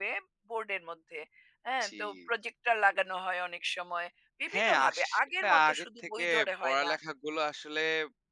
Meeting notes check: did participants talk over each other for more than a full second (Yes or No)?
Yes